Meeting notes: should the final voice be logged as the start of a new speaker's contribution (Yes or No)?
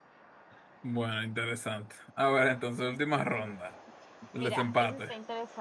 Yes